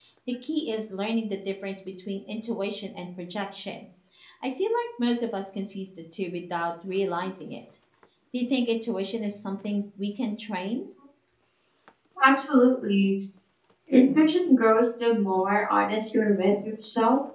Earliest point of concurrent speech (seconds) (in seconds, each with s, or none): none